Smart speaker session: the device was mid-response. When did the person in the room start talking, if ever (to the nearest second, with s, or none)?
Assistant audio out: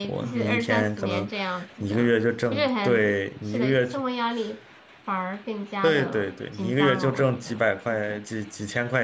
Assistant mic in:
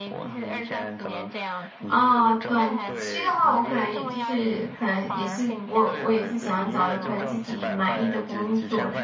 2 s